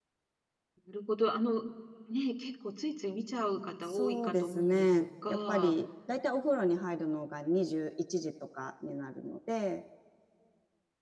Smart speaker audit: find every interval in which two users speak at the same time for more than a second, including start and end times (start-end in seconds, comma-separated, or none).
3.9-5.7